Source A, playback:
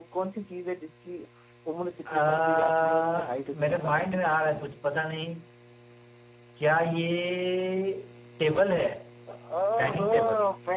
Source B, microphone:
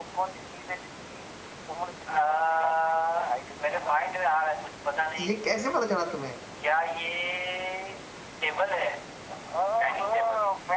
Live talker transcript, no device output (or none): ये कैसे पता चला तुम्हें